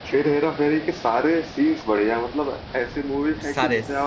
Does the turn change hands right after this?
No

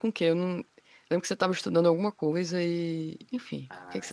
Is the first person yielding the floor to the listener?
Yes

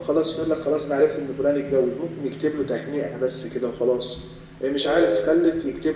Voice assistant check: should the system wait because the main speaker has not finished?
Yes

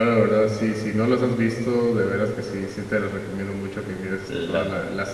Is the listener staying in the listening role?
Yes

